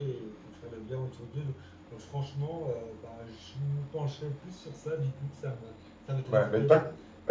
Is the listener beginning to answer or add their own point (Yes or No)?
Yes